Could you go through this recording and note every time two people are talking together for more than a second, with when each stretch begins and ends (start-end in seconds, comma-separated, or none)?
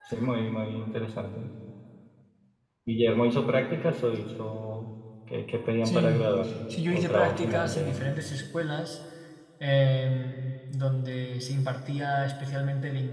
6.9-8.1